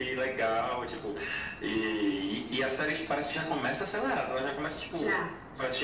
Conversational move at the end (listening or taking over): listening